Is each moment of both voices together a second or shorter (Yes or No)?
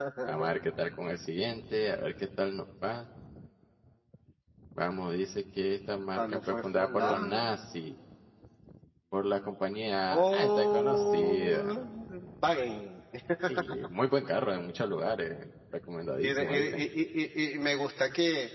No